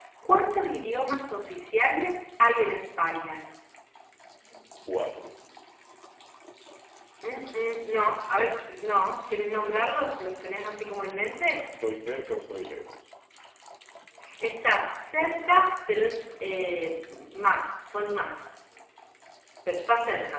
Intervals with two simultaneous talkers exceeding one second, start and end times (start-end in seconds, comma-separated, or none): none